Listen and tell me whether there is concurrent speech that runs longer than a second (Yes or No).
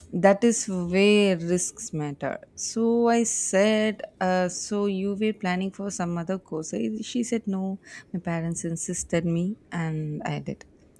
No